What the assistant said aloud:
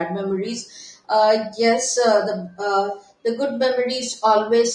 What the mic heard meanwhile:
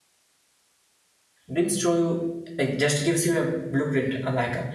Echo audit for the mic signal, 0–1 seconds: neither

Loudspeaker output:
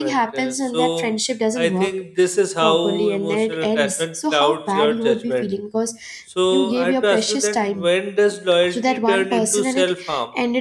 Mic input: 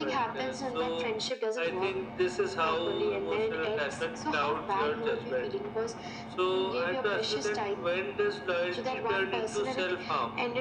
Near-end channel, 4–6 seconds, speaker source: echo only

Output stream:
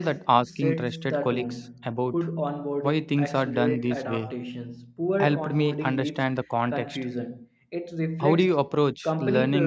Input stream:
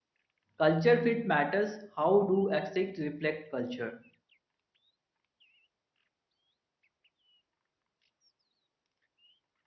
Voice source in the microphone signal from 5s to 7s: neither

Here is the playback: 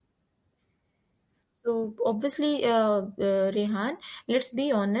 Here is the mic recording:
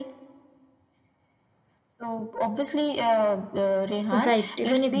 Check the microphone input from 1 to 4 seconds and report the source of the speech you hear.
echo only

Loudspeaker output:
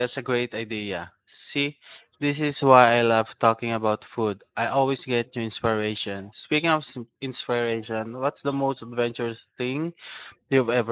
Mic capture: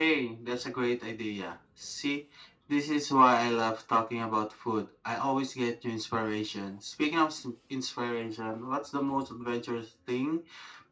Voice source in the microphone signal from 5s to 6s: echo only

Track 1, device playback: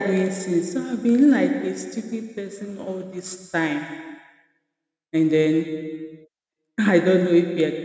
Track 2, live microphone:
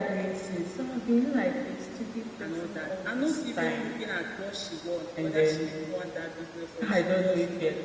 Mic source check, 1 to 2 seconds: echo only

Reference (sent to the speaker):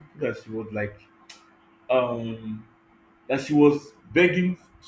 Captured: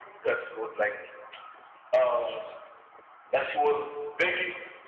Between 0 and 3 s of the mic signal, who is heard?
echo only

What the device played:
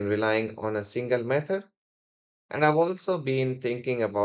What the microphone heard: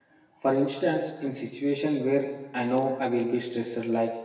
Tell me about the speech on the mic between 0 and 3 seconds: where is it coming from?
user only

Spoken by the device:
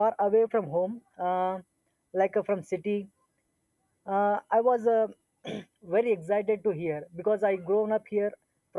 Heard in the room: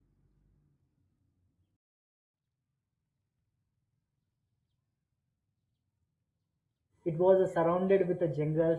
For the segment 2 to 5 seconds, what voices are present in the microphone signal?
neither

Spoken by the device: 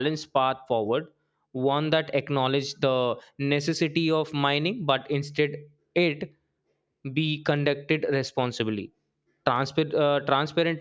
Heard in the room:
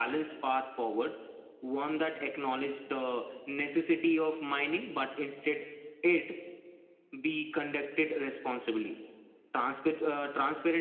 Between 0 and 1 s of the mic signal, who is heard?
echo only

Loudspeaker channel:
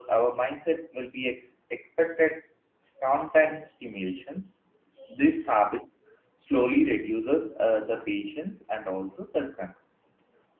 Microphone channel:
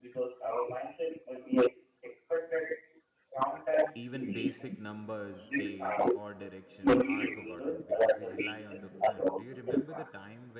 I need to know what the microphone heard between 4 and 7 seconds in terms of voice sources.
both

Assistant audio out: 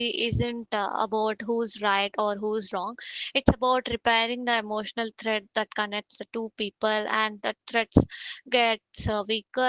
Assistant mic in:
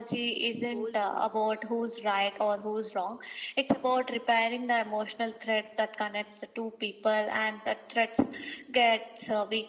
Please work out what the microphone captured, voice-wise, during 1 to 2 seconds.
both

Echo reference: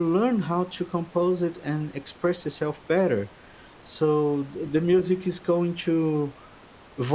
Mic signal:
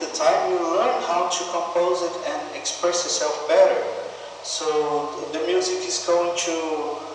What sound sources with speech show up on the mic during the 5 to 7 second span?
echo only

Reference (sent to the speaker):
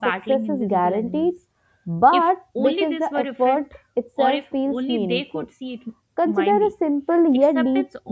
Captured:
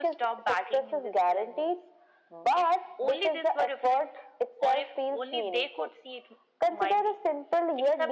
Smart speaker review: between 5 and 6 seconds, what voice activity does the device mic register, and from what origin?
echo only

